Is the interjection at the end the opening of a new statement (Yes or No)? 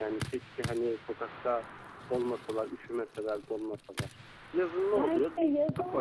Yes